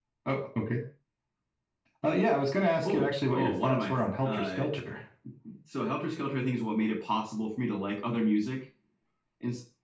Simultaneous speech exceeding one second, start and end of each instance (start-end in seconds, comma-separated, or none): 2.9-4.6